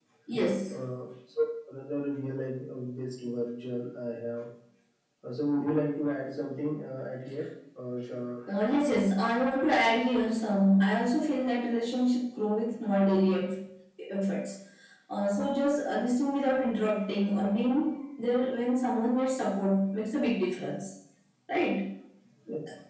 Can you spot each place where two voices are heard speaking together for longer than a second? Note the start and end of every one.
none

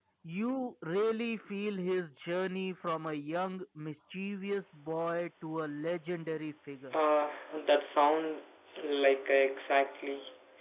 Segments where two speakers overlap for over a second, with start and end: none

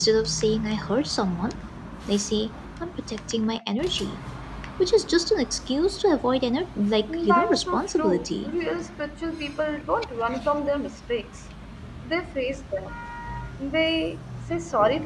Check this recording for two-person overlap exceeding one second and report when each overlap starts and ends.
7.1-8.5

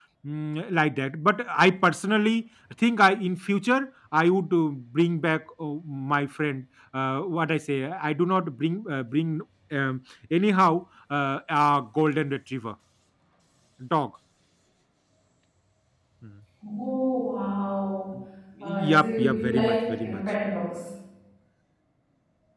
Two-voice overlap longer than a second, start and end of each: 18.9-20.2

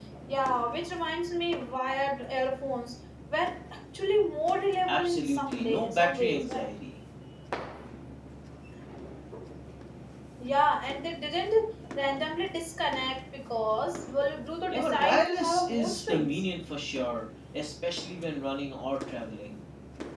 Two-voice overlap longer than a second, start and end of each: 4.9-6.7, 14.7-16.3

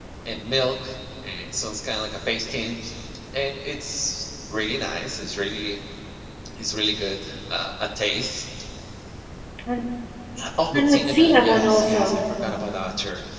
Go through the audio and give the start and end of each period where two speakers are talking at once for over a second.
10.7-12.2

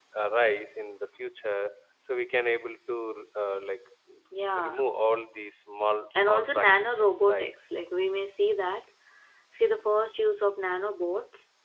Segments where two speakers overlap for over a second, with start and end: 6.2-7.5

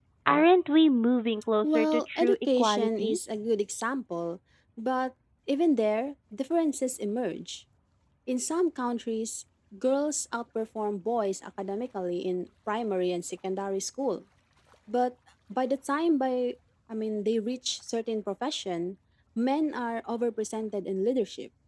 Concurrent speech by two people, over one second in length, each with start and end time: 1.6-3.2

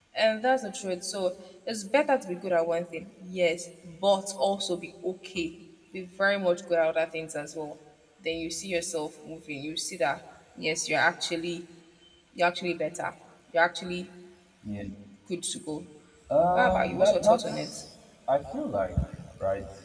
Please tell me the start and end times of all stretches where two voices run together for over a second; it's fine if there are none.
16.5-17.7

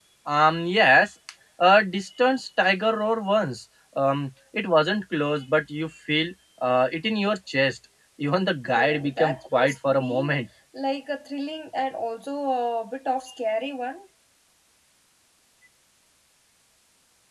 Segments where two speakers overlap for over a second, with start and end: 8.8-10.4

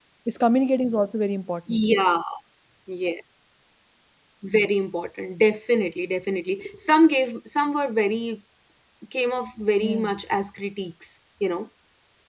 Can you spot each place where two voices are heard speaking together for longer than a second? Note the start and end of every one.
none

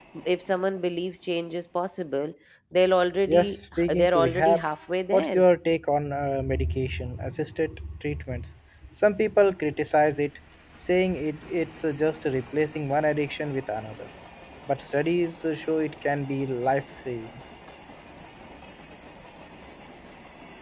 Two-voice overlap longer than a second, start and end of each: 3.3-4.6

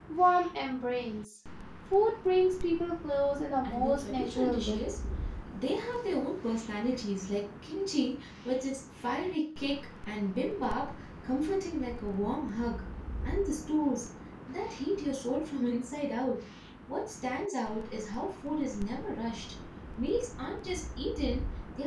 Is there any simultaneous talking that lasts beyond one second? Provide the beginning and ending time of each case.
3.6-4.8

